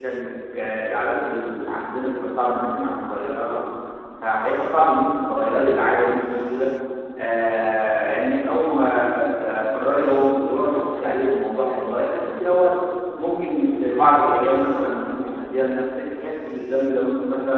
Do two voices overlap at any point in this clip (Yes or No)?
No